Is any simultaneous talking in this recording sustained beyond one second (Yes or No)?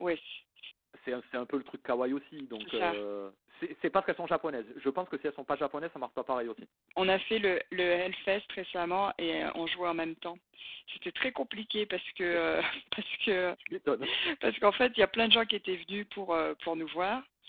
No